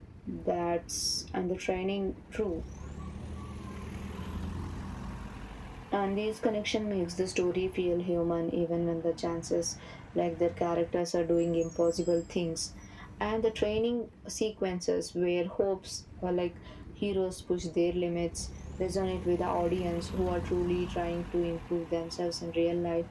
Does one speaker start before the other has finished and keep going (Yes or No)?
No